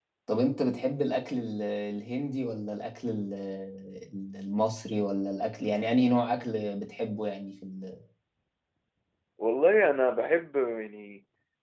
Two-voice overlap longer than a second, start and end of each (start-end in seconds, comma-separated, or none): none